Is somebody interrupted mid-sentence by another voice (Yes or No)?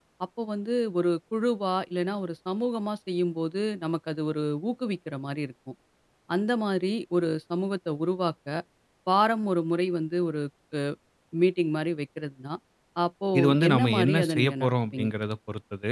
Yes